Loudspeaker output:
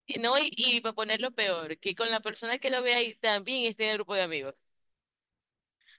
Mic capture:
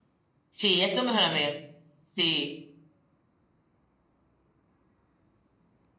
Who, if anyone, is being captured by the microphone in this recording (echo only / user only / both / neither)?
user only